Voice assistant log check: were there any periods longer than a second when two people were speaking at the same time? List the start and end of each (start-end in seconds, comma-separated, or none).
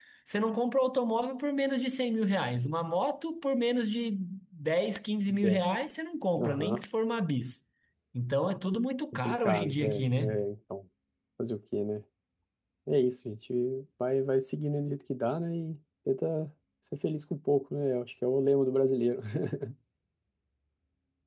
9.1-10.3